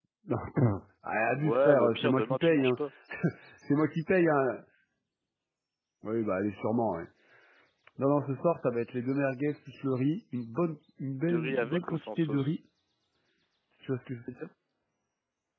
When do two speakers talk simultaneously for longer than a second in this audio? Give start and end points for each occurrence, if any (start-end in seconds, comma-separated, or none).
1.4-2.8, 11.3-12.6